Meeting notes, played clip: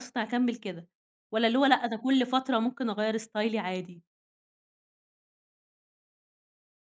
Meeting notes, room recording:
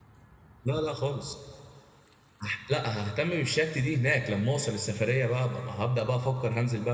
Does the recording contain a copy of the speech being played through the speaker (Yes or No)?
No